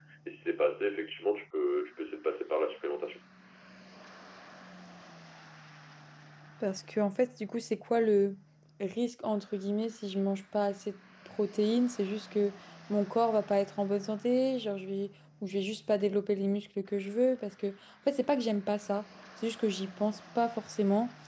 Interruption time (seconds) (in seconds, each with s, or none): none